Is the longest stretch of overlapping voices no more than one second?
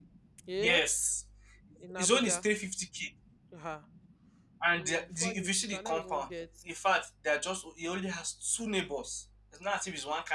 No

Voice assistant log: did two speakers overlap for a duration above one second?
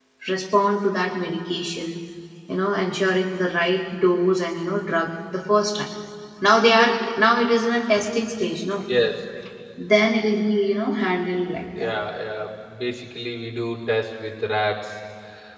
No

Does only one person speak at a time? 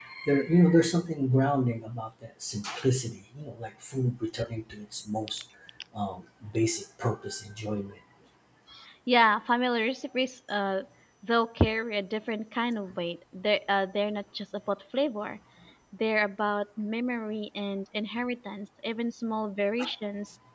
Yes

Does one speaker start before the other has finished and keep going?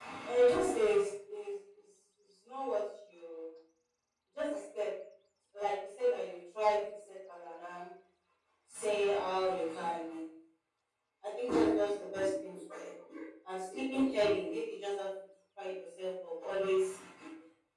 No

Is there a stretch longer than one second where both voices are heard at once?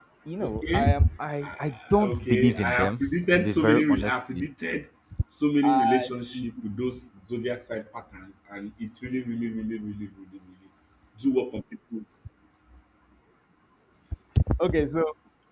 Yes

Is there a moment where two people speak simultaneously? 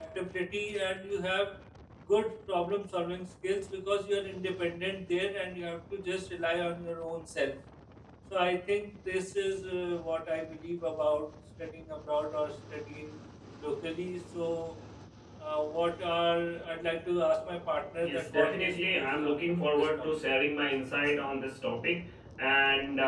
Yes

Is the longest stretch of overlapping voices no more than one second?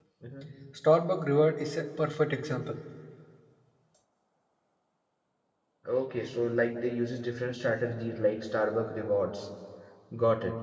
Yes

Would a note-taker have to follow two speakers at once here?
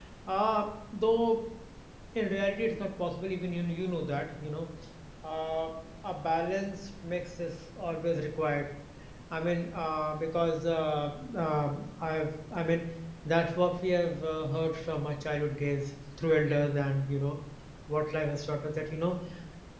No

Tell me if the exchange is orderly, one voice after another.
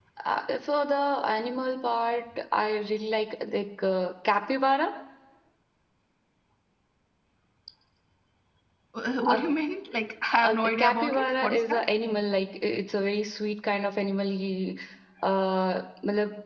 No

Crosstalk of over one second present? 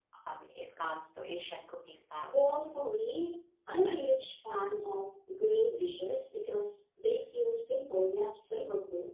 No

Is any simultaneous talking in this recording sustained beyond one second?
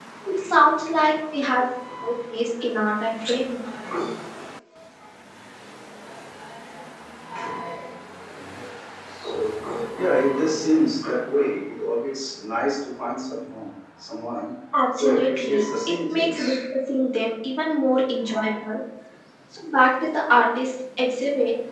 Yes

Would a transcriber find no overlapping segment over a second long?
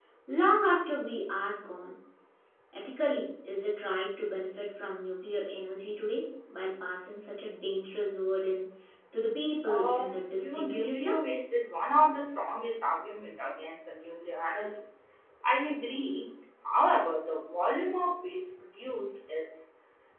No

